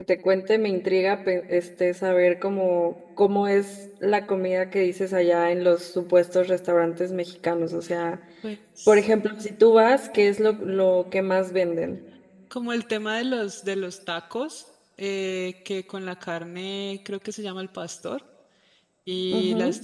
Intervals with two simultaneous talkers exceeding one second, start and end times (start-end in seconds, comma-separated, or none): none